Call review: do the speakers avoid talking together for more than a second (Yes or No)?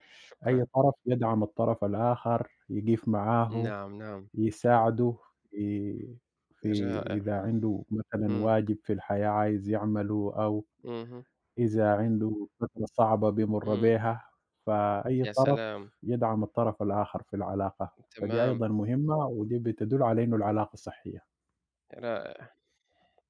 Yes